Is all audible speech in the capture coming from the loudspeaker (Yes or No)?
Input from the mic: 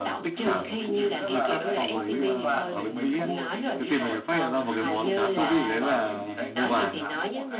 No